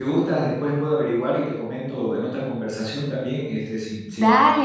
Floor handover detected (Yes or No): Yes